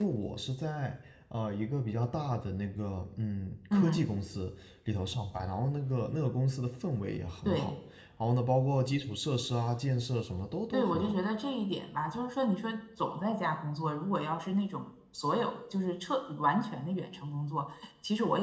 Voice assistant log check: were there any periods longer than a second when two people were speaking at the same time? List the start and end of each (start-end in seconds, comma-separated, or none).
none